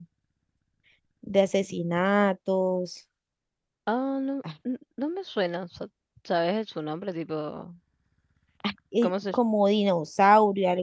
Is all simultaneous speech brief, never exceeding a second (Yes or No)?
Yes